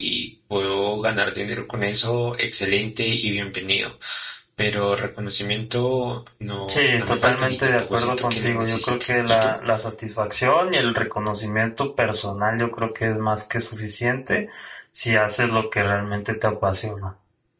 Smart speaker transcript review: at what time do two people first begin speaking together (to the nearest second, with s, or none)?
7 s